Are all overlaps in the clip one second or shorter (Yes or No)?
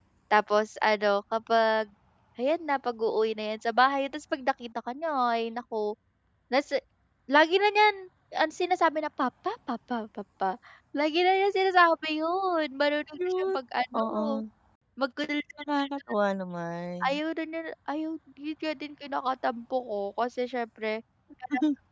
Yes